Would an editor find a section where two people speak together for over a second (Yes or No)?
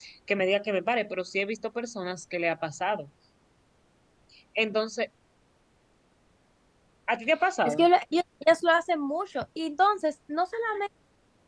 No